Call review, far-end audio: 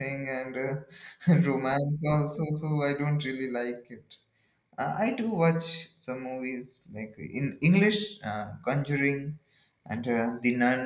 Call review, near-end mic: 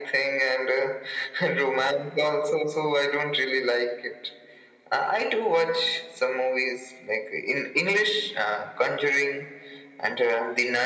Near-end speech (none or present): none